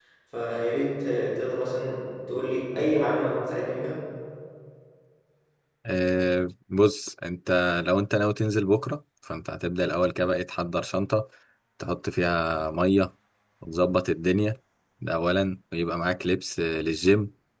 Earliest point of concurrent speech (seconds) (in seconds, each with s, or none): none